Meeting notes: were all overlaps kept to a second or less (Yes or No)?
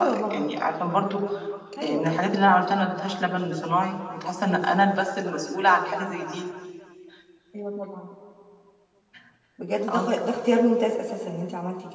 Yes